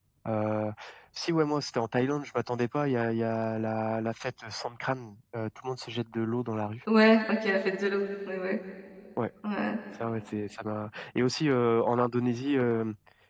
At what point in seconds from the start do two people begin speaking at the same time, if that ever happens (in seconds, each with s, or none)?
none